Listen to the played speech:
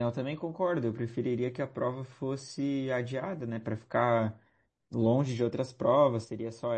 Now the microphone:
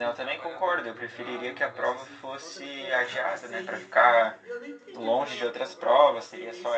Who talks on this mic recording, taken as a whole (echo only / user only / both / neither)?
both